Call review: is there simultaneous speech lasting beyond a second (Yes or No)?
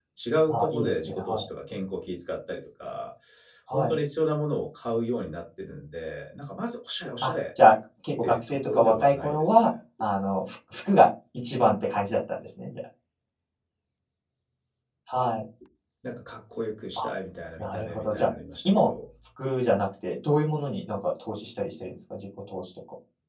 Yes